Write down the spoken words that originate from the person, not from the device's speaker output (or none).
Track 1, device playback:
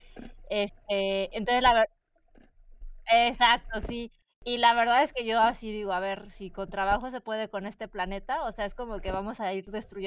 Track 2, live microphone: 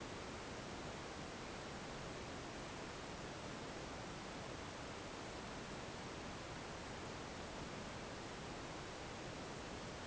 none